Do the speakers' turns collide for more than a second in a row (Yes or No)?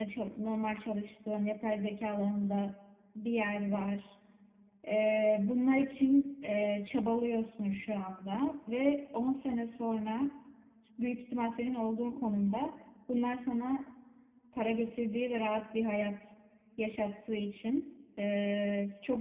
No